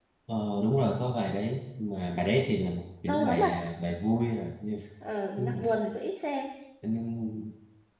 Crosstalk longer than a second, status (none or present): none